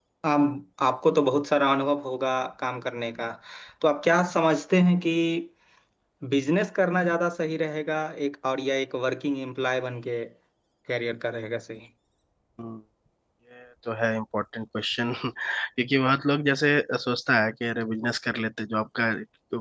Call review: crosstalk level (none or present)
none